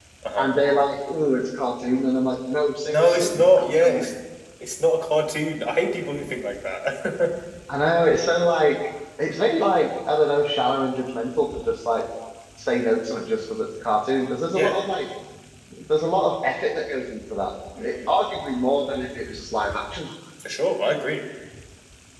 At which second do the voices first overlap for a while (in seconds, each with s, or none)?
2.9 s